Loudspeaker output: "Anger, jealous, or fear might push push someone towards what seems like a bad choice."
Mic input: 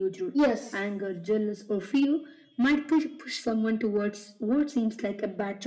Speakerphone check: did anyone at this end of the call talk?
Yes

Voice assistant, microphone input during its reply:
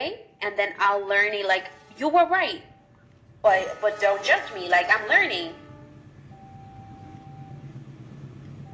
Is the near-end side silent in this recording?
Yes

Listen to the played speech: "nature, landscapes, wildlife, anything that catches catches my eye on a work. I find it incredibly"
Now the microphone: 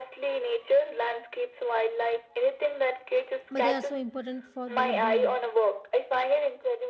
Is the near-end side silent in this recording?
No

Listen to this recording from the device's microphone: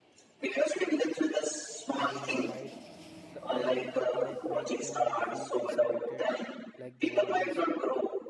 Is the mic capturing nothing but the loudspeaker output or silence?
No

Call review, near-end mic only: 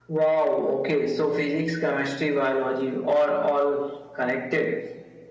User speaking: No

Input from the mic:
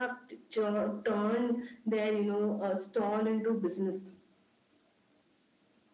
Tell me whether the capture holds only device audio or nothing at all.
Yes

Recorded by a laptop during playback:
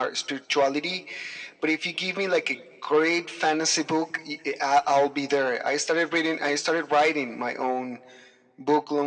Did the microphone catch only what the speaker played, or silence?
Yes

